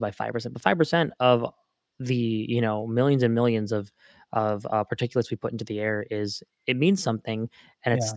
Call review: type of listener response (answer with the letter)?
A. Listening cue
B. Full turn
A